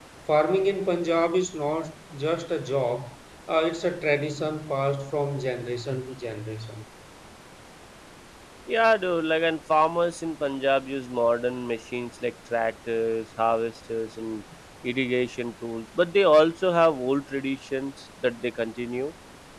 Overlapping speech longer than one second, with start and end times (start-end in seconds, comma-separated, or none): none